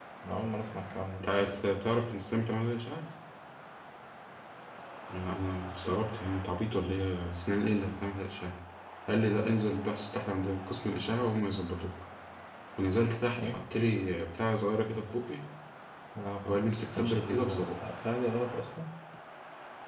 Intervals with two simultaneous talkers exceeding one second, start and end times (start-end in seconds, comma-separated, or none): 16.5-17.8